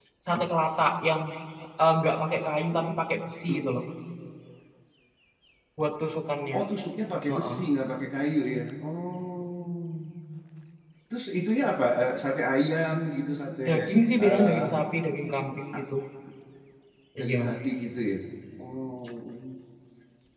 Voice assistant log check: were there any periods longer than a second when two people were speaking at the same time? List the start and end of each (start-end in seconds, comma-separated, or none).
none